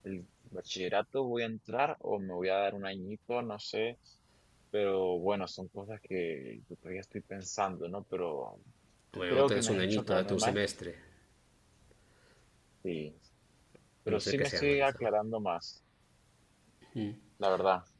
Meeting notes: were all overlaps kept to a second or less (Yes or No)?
No